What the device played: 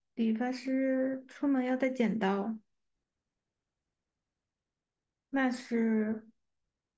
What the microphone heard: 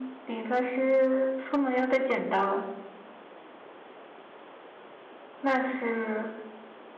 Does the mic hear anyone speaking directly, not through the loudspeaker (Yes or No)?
No